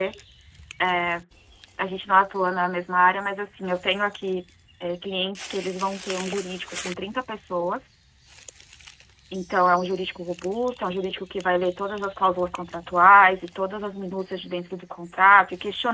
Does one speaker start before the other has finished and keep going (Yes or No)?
No